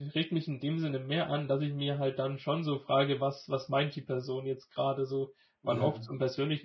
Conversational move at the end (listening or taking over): listening